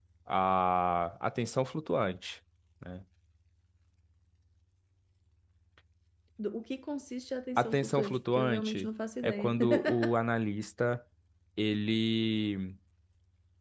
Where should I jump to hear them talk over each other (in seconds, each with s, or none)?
7.5 s